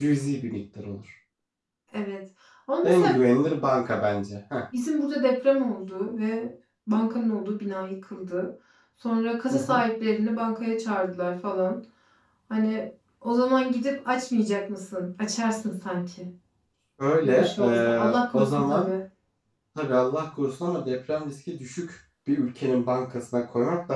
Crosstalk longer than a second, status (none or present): present